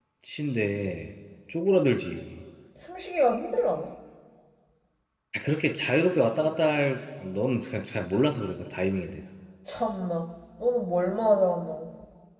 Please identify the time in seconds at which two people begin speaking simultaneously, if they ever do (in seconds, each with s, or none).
none